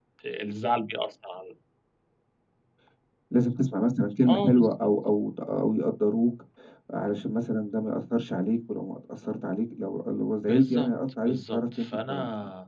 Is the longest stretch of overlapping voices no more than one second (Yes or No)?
No